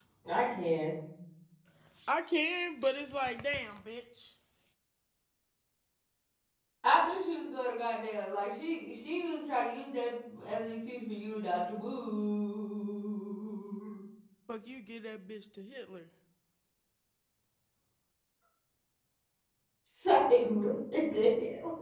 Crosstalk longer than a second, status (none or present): none